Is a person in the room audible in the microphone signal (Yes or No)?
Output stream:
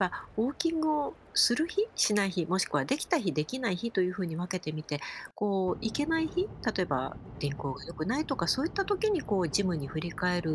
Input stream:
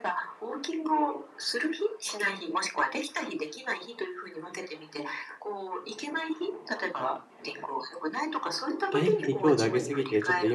Yes